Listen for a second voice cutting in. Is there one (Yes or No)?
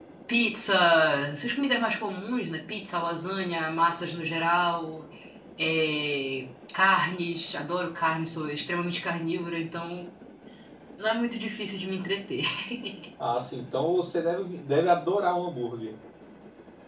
No